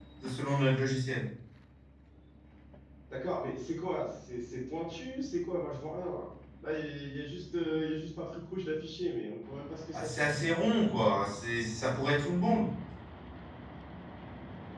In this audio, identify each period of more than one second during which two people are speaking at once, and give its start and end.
none

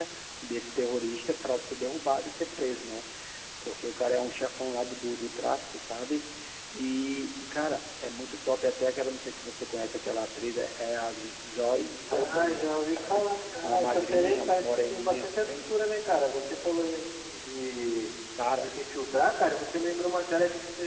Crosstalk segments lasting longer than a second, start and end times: 11.9-15.3

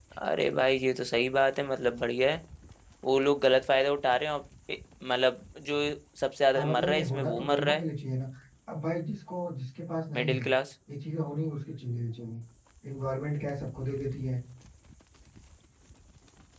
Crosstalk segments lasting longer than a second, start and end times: 6.5-7.8

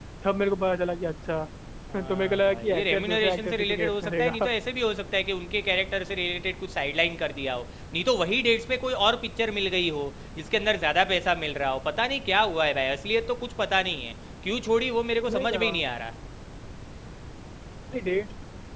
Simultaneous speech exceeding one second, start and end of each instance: 1.9-4.4

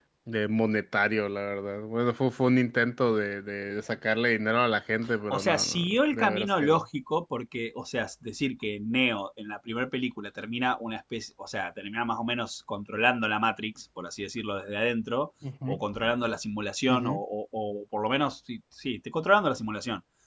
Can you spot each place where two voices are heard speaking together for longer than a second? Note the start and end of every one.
5.3-6.8

